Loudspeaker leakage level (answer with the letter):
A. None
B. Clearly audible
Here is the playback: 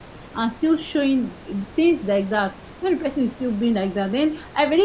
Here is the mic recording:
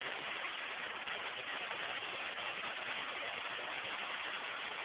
A